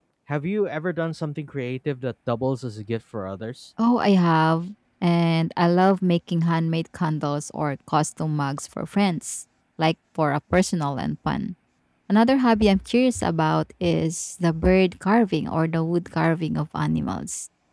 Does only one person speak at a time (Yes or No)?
Yes